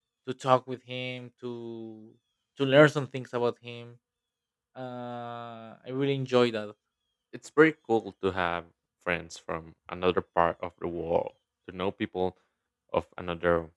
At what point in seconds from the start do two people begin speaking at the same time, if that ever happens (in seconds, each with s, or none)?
none